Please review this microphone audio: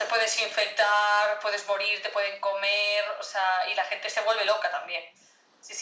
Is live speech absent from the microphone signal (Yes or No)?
Yes